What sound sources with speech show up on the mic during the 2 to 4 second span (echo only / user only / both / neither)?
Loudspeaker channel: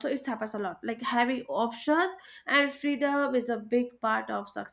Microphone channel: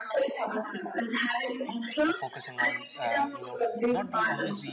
both